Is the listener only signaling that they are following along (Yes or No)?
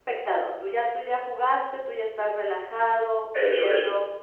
Yes